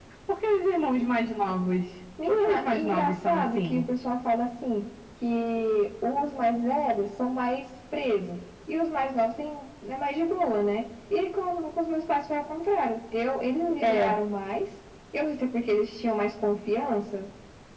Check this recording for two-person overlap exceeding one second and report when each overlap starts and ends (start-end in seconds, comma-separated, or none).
2.3-3.9